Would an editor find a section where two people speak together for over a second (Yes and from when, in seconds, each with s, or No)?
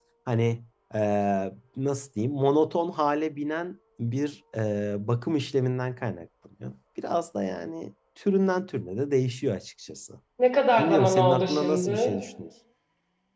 Yes, from 10.8 s